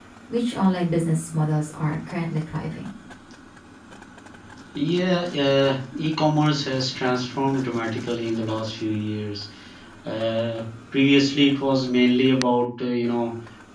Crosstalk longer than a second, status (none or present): none